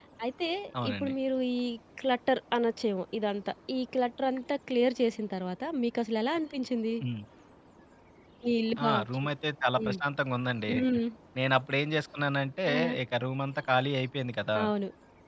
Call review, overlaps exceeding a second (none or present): none